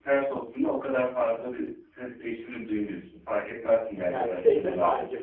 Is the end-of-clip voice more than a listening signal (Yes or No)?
Yes